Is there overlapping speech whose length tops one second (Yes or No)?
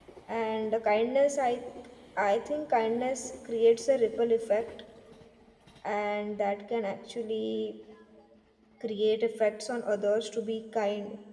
No